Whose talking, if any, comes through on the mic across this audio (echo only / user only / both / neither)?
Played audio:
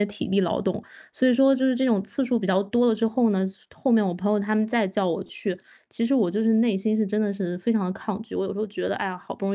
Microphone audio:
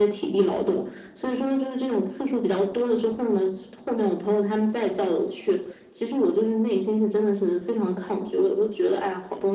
echo only